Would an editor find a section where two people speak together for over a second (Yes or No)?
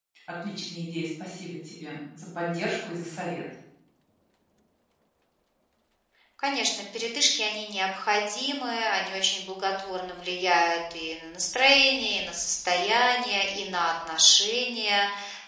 No